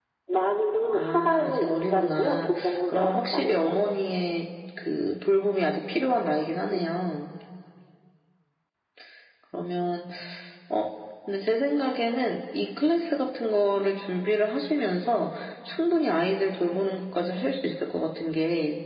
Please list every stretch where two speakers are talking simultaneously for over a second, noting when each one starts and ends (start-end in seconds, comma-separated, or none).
0.9-3.8